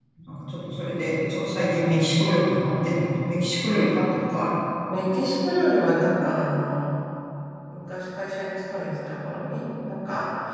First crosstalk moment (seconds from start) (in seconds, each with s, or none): none